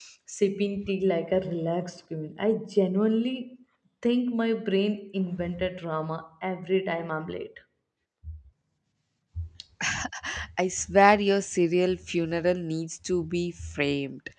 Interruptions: none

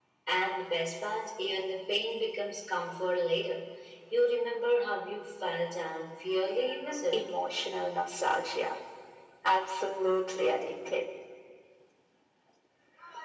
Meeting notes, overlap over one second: none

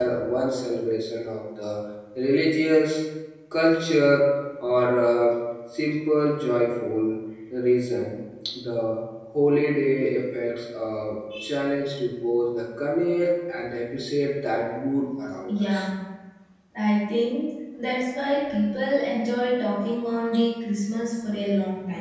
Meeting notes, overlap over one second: none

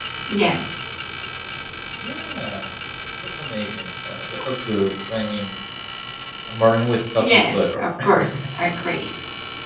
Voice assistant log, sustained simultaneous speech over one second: present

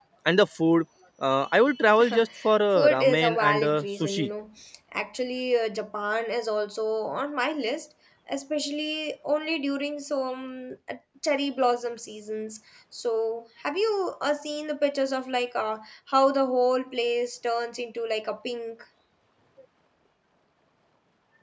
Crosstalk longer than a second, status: present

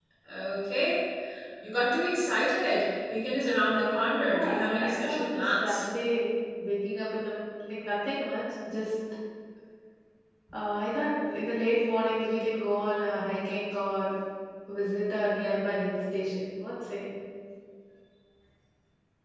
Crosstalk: present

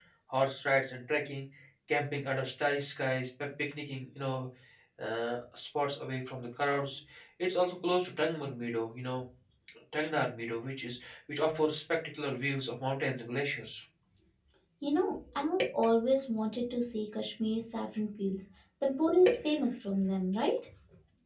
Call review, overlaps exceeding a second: none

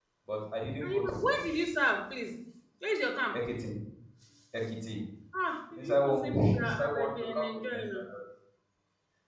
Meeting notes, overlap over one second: present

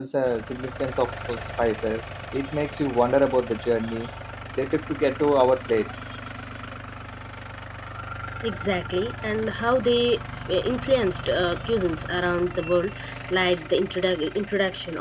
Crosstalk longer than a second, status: none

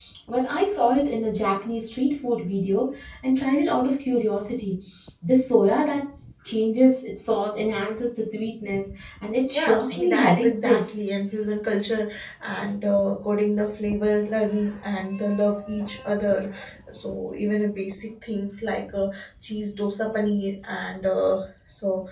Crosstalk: present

